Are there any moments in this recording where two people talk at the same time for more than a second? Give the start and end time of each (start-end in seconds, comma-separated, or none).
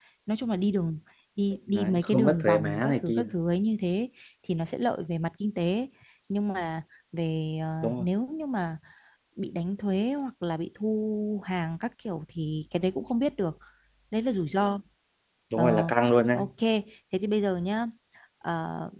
1.7-3.2